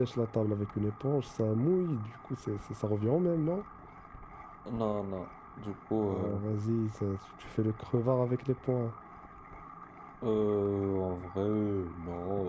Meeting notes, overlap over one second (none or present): none